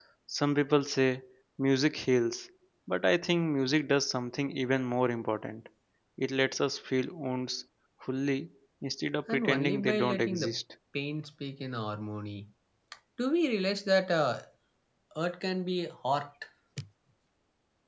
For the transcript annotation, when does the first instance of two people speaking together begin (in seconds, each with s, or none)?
9.3 s